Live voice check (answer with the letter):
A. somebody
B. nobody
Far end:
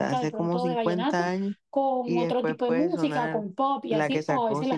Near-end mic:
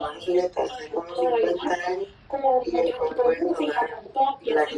B